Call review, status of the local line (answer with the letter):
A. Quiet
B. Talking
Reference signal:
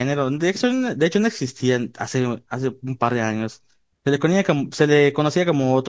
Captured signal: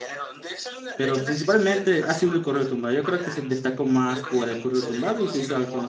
B